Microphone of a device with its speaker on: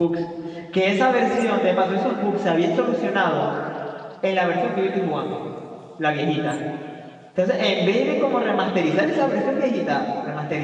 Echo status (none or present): none